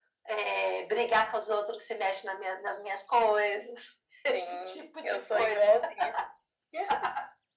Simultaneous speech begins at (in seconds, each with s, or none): 4.3 s